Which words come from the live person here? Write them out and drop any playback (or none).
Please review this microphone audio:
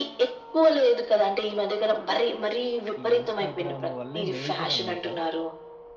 ఈ ఇన్‌స్టాగ్రాము వల్లే మేజరనమాట.